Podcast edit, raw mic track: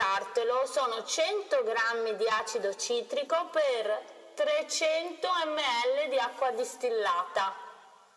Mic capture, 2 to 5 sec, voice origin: echo only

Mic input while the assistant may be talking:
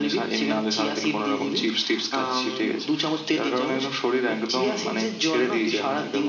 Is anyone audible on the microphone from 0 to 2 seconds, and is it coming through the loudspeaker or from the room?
echo only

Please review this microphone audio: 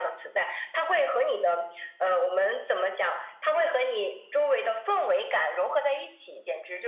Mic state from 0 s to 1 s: echo only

